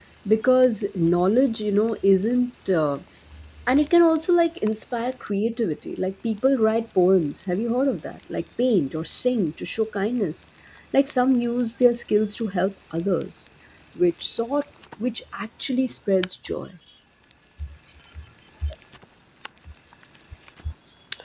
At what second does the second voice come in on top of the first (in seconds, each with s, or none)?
none